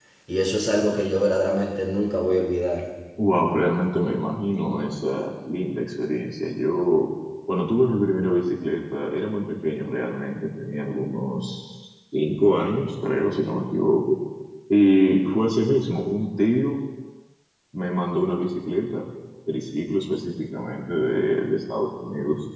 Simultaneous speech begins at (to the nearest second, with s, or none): none